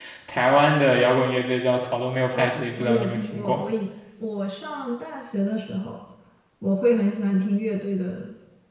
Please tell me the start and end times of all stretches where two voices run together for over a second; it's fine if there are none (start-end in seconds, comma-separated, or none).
2.4-3.6